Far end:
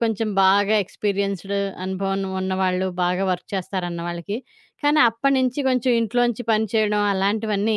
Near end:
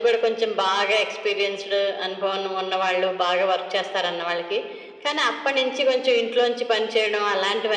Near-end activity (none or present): none